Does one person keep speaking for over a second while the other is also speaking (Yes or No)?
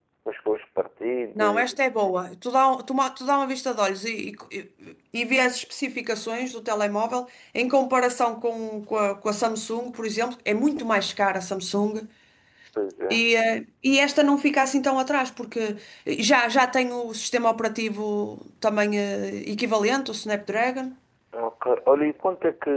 No